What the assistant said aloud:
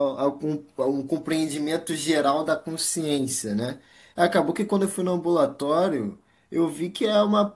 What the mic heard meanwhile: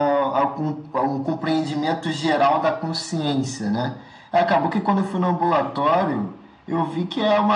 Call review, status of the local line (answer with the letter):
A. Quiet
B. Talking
A